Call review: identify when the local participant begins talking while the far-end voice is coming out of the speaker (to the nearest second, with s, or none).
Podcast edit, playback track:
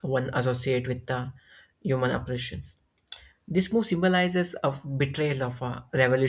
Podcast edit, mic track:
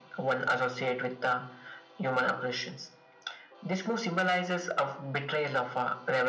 none